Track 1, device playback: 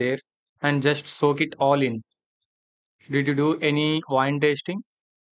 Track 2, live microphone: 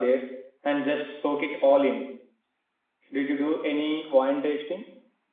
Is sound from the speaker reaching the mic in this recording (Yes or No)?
Yes